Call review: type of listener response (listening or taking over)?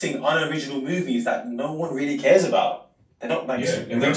taking over